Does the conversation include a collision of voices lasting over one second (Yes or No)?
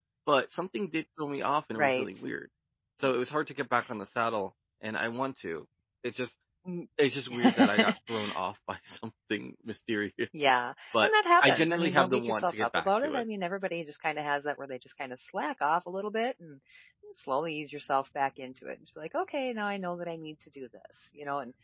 Yes